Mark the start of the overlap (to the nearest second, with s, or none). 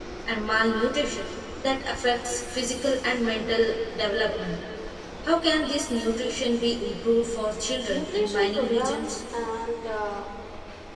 8 s